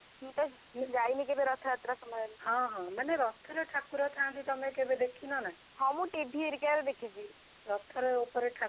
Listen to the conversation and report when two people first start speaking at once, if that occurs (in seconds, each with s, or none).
none